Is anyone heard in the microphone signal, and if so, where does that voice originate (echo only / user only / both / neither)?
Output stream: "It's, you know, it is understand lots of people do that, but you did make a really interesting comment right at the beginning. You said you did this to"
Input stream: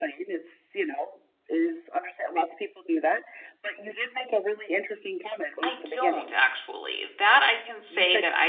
both